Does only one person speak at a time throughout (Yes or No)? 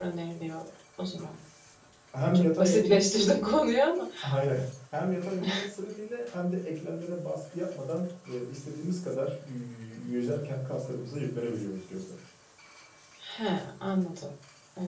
No